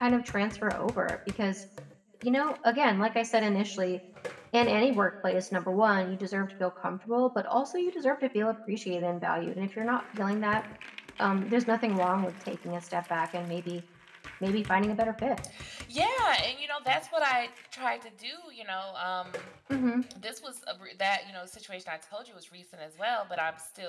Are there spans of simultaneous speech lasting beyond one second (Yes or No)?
No